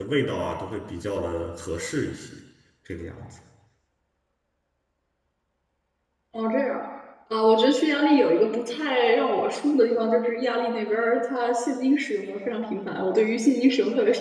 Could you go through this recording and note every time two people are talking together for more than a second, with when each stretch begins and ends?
none

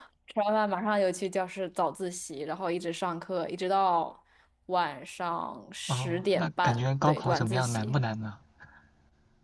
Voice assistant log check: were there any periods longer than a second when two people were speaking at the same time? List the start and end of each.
5.9-8.0

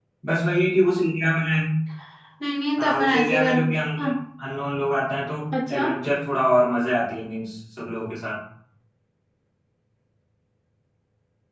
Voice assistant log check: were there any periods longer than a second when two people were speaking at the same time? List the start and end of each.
2.8-4.1

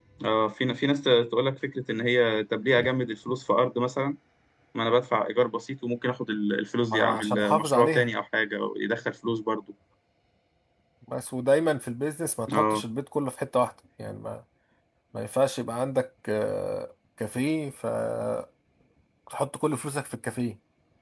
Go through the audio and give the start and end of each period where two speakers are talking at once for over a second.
6.8-8.1

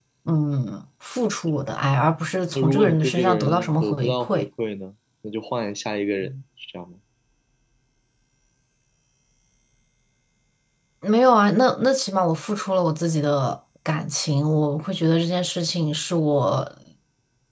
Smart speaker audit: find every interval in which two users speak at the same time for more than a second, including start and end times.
2.5-4.5

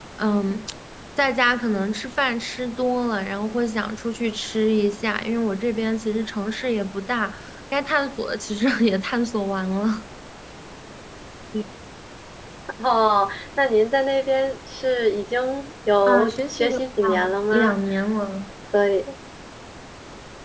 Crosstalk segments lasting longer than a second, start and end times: 16.1-17.8

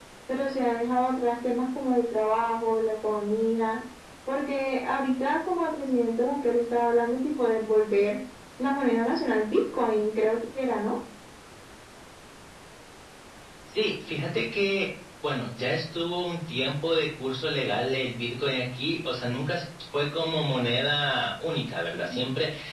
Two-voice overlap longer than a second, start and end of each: none

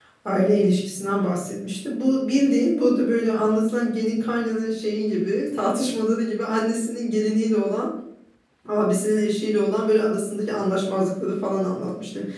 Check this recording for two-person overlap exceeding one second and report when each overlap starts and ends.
none

